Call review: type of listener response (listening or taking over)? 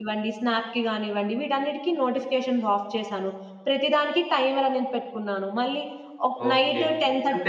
taking over